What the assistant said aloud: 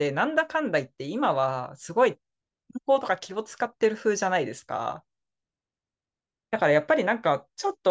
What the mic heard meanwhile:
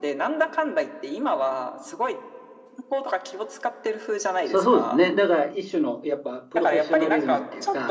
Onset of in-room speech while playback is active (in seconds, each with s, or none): 4.4 s